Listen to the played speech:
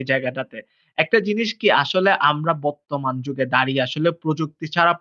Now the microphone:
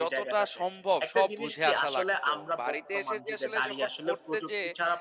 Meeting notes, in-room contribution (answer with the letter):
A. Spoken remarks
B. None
A